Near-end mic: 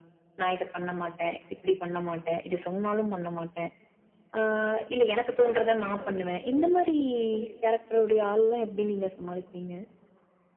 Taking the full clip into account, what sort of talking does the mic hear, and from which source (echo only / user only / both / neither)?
both